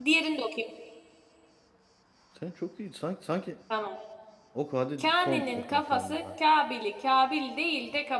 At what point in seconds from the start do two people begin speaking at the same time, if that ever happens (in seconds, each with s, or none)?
5.0 s